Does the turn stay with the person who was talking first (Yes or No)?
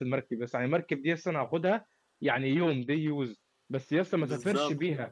Yes